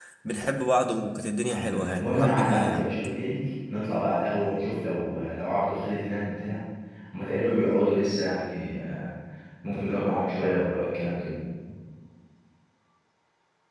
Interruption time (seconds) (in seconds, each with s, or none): 1.5 s